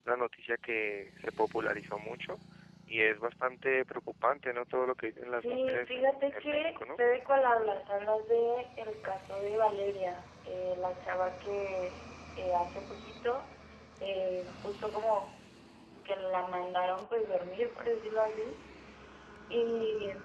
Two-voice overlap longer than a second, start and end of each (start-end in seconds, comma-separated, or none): 5.2-7.0